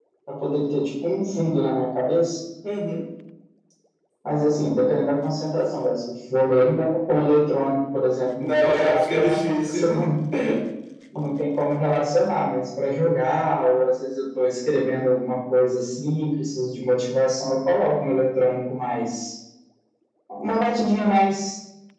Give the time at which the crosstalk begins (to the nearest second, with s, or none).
8 s